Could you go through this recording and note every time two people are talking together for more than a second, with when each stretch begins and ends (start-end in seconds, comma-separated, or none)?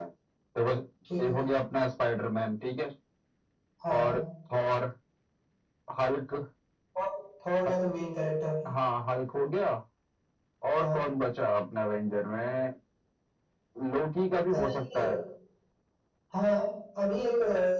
none